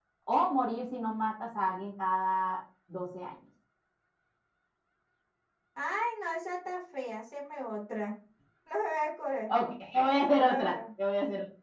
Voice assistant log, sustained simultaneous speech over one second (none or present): none